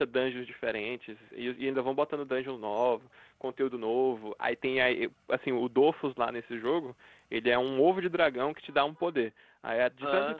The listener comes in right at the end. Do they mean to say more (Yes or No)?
No